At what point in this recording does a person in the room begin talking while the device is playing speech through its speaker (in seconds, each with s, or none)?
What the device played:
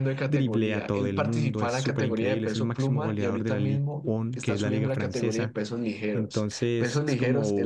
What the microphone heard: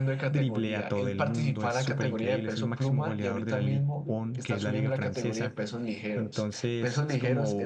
none